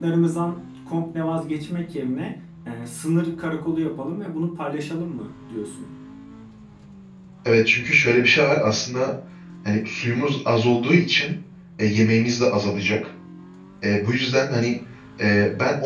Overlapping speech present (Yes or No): No